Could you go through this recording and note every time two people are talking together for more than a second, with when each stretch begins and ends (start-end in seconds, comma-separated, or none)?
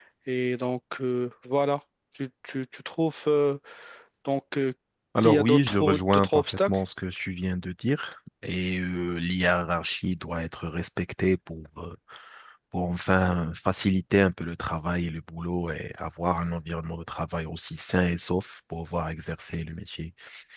5.2-6.8